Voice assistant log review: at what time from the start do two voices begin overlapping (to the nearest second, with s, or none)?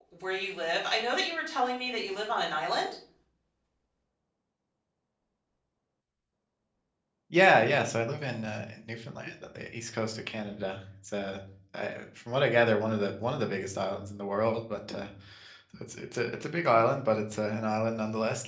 none